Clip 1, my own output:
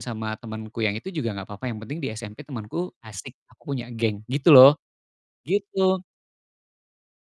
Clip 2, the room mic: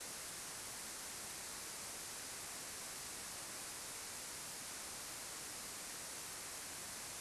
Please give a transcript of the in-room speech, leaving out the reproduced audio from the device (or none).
none